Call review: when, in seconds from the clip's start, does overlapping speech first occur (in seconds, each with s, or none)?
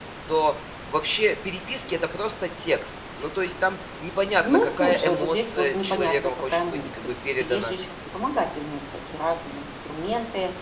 4.4 s